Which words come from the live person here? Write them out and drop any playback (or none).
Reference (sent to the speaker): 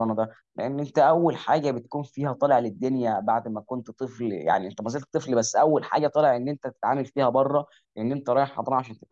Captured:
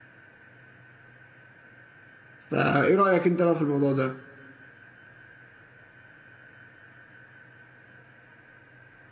فإيه رأيك أنت بقى في الموضوع ده؟